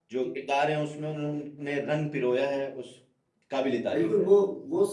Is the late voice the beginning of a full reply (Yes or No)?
Yes